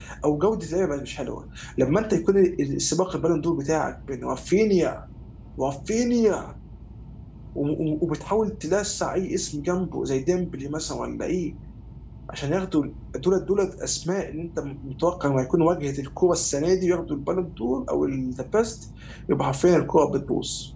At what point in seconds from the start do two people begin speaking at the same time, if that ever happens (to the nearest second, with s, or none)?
none